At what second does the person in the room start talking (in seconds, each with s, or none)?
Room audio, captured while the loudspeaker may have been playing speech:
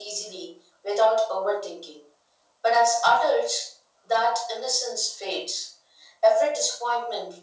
none